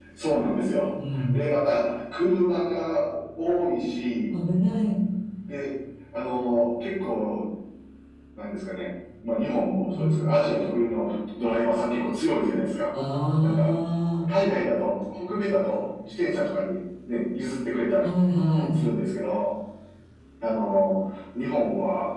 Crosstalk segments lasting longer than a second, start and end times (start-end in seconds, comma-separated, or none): none